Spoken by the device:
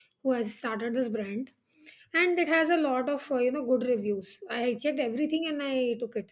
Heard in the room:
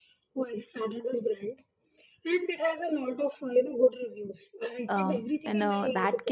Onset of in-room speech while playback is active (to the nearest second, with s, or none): 5 s